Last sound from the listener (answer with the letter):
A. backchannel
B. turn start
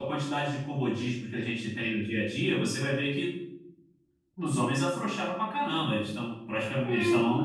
B